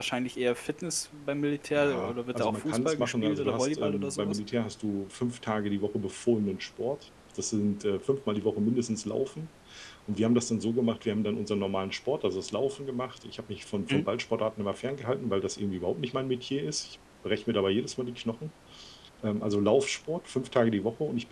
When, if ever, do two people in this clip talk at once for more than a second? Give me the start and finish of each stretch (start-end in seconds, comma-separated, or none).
1.7-4.4